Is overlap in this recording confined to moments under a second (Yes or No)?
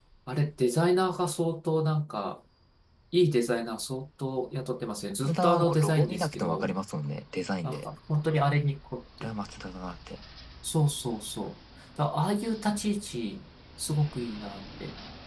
No